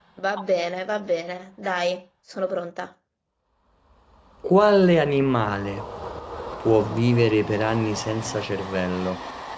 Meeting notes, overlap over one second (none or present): none